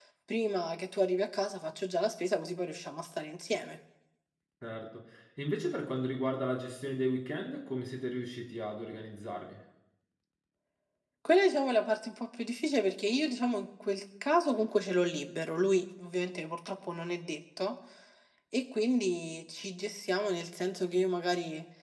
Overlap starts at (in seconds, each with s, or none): none